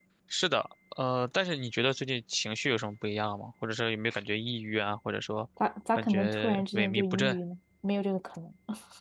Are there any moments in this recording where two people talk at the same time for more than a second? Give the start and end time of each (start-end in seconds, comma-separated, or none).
6.0-7.4